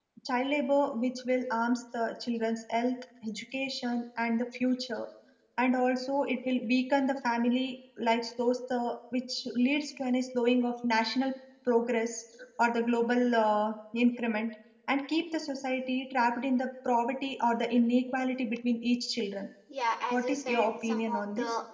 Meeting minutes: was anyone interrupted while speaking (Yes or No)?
Yes